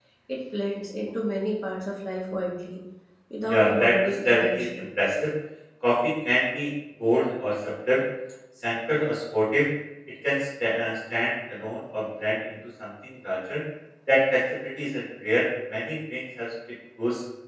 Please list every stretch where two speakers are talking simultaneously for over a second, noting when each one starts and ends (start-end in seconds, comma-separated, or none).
3.4-4.9